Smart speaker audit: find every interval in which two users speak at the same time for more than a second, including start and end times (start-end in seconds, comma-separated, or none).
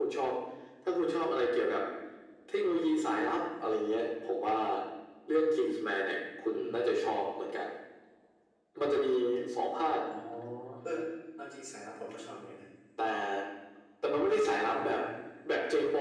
none